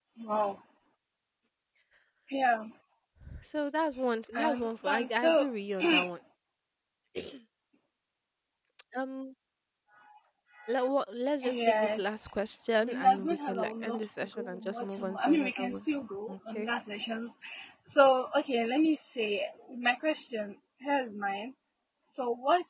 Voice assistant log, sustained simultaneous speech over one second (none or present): present